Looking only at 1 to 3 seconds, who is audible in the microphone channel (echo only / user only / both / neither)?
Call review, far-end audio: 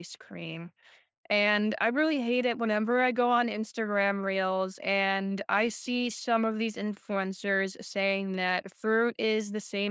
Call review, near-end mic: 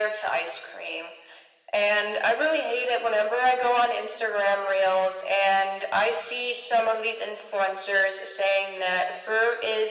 echo only